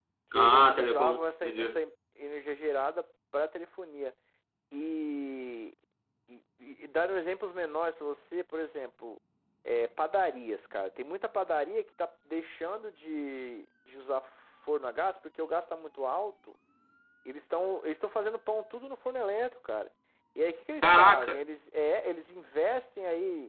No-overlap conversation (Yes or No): No